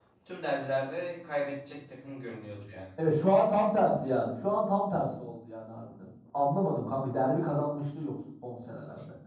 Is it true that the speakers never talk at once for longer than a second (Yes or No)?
Yes